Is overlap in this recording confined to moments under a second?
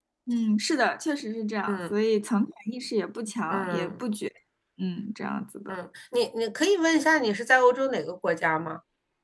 Yes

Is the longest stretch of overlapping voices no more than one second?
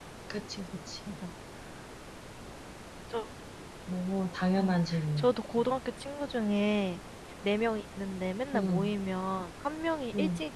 No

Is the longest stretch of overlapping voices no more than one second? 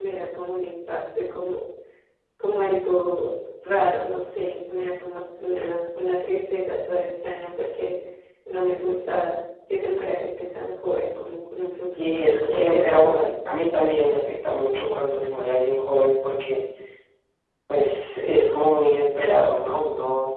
No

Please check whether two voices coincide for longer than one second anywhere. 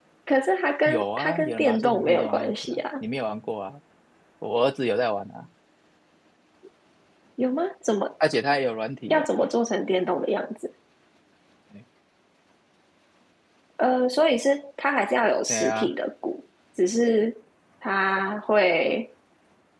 Yes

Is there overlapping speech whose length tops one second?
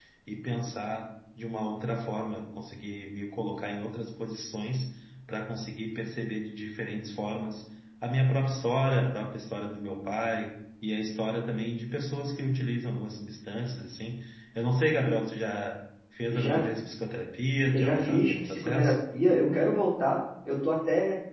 Yes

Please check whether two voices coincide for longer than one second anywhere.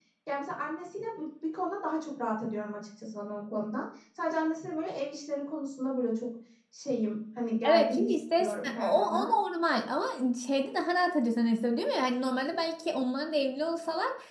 Yes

